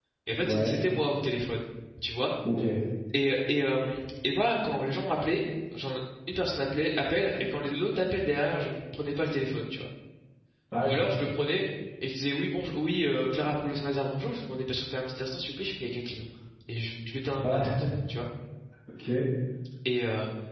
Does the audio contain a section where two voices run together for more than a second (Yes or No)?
No